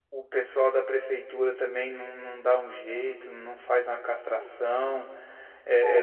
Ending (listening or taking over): listening